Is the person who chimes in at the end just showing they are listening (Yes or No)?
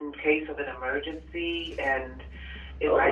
Yes